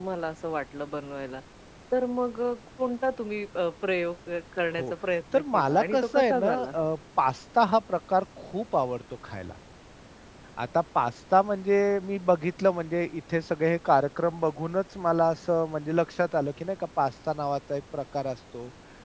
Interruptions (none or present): present